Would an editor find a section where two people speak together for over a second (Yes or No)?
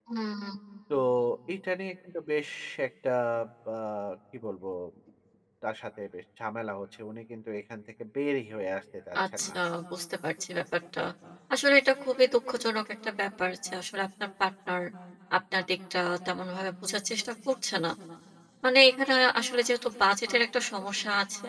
No